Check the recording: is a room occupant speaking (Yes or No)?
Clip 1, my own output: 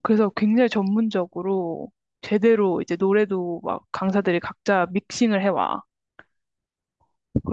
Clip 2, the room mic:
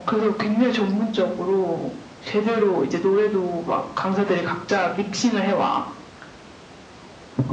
No